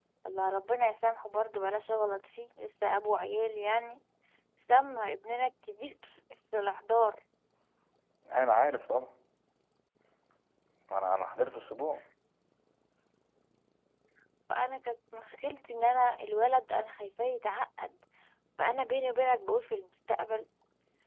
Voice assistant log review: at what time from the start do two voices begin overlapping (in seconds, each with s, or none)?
none